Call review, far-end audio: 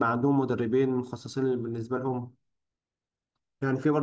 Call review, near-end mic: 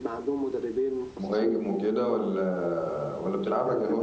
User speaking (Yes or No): Yes